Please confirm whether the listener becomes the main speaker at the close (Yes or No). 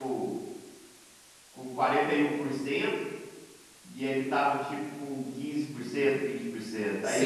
Yes